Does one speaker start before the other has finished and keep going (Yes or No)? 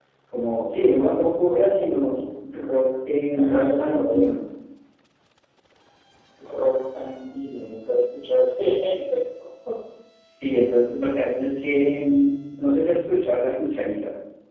Yes